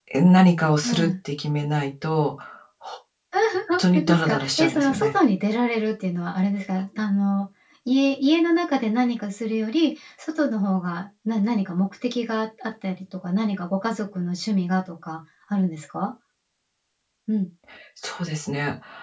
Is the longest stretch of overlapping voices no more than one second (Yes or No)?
No